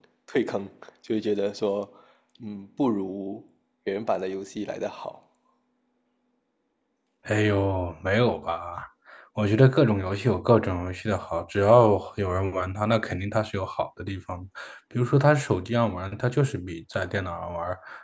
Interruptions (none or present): none